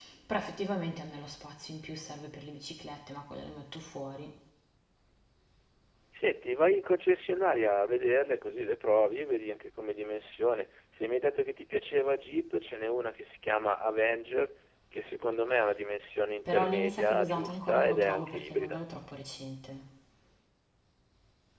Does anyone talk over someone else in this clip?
Yes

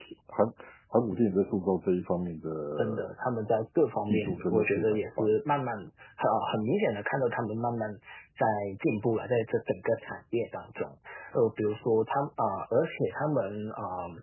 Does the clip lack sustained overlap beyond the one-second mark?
No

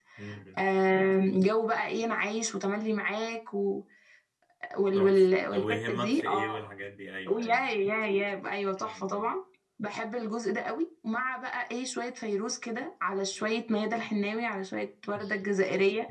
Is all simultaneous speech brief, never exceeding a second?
No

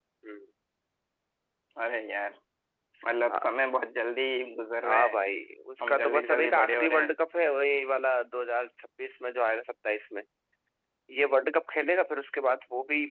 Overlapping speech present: Yes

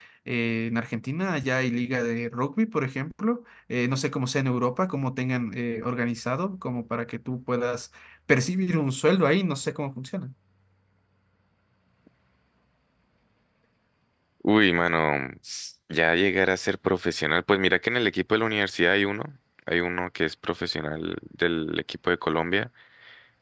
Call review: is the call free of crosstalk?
Yes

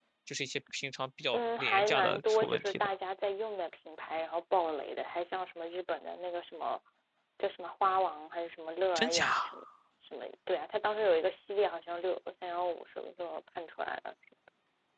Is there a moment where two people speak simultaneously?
Yes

